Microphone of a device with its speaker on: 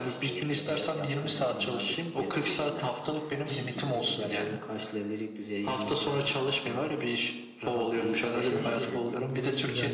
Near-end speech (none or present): present